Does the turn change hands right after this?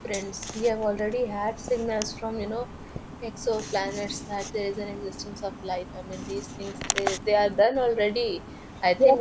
No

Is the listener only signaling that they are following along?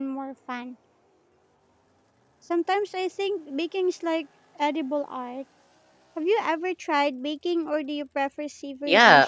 No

